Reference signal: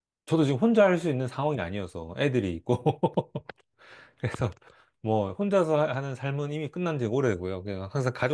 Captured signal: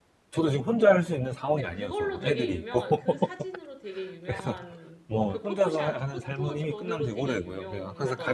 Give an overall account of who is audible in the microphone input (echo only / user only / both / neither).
both